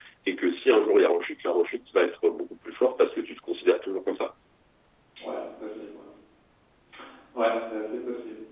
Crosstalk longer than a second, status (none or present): none